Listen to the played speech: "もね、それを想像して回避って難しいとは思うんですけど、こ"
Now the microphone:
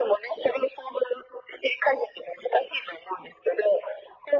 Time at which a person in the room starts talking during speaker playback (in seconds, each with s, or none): none